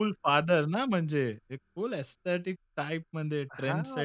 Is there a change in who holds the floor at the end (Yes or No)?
Yes